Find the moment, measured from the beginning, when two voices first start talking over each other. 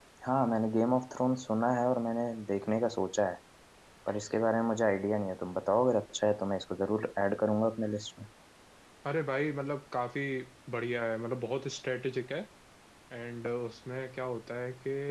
none

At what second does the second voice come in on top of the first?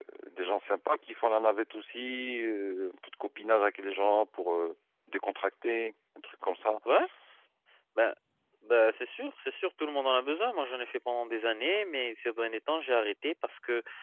none

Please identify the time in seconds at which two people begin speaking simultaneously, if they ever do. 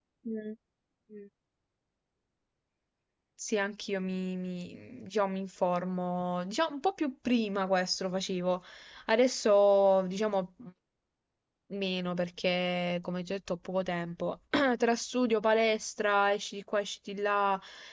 none

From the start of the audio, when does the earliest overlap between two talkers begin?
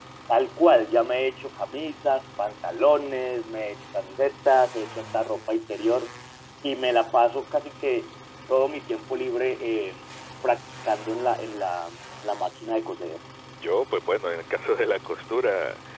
none

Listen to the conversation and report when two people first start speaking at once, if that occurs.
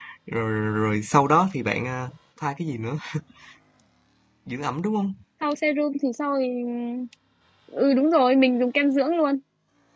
none

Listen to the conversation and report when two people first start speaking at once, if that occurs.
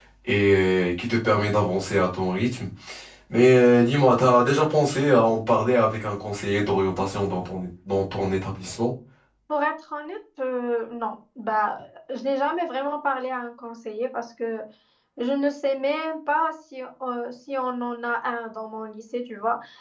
none

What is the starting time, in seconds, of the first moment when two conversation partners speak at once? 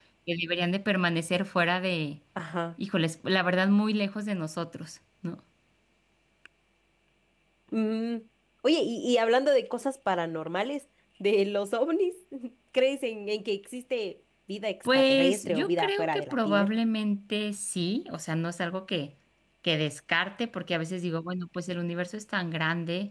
14.8 s

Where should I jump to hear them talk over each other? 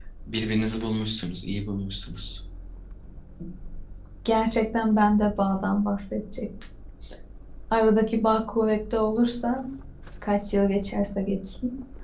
none

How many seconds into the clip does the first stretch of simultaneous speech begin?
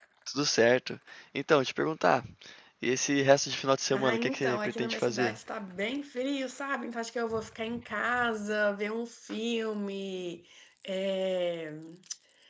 3.9 s

